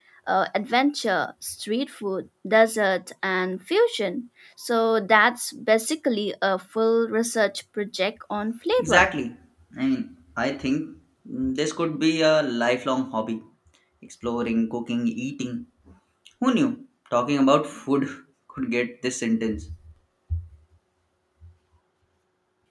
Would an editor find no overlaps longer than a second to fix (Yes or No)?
Yes